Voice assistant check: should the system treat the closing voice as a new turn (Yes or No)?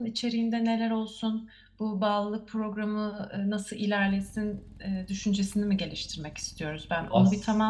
No